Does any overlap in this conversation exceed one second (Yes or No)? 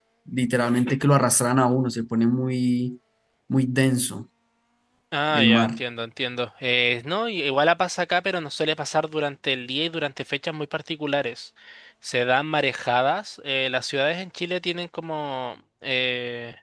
No